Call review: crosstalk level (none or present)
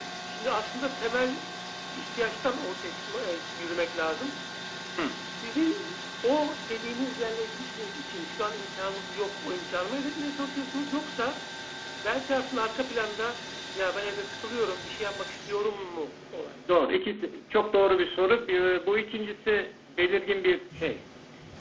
none